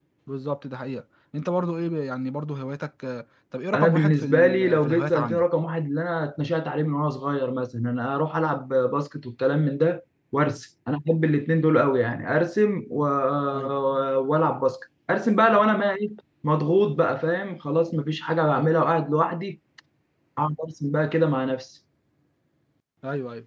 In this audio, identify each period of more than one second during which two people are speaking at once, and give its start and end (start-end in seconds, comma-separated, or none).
3.7-5.4